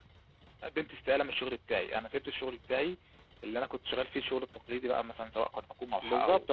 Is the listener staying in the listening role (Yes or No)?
No